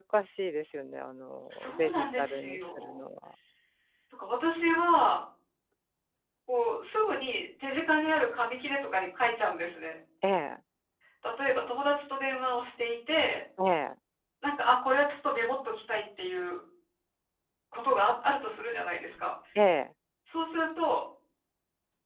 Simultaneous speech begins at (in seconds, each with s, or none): 1.5 s